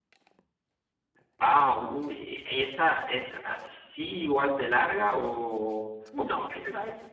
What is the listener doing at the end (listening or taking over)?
taking over